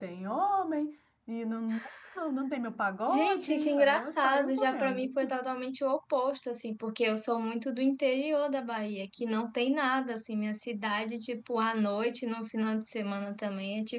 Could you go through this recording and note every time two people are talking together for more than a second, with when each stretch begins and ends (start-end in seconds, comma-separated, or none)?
3.1-5.1